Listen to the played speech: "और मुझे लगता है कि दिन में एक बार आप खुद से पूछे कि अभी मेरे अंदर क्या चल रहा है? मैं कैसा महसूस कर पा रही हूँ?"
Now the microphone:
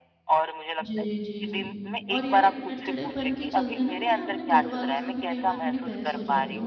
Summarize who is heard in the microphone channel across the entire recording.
both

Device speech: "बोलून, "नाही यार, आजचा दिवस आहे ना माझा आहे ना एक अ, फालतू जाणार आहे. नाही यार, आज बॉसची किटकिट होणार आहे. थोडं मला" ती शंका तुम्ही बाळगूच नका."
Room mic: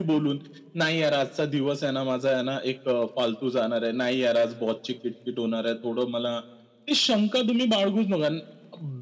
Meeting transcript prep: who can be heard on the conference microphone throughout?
echo only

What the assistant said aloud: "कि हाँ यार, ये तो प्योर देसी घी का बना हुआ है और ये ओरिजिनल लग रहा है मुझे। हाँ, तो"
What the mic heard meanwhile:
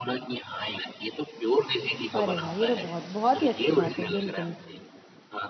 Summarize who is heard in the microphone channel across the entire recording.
both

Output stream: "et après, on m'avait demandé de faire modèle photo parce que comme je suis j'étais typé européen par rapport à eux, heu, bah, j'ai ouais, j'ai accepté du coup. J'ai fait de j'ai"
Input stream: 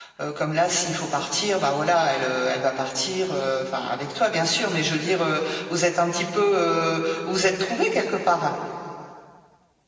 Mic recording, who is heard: user only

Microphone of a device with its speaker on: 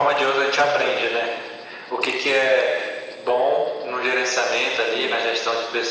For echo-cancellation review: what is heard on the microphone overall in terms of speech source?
both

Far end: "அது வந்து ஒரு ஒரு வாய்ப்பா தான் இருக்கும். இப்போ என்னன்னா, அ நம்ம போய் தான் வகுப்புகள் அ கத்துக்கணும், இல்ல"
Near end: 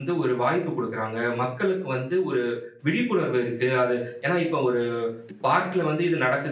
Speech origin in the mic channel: user only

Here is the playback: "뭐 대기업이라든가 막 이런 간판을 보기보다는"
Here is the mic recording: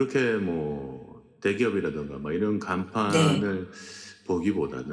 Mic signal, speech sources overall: both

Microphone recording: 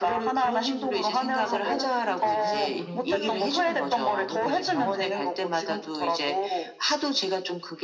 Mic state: both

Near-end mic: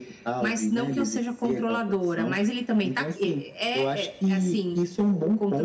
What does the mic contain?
echo only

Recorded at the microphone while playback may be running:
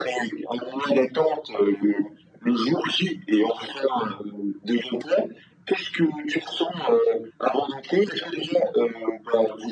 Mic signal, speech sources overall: echo only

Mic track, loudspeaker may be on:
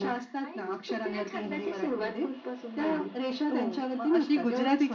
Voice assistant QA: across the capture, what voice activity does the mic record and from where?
both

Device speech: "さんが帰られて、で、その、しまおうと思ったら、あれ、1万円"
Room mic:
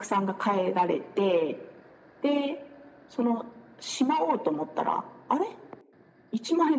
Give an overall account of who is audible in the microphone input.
echo only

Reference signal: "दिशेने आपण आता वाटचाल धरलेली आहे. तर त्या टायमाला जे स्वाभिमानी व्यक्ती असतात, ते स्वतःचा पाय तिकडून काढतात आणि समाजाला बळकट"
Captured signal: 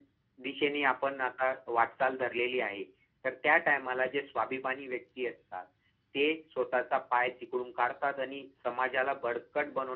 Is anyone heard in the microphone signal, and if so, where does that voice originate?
echo only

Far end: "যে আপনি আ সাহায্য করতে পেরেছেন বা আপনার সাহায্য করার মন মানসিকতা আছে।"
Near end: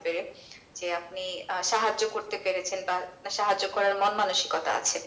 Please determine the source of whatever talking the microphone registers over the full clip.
echo only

